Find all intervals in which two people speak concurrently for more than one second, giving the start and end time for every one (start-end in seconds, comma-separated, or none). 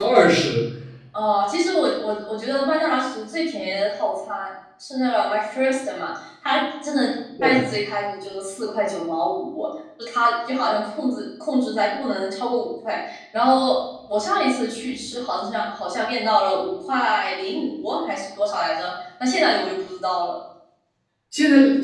none